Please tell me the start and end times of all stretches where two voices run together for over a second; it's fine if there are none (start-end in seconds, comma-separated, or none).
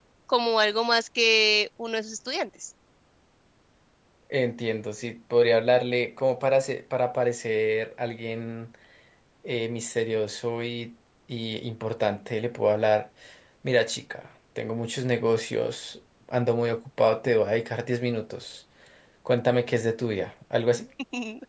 none